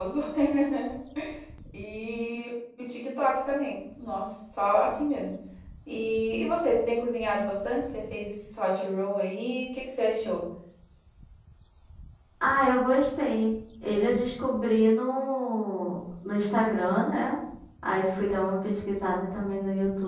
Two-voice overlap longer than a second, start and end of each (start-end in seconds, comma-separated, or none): none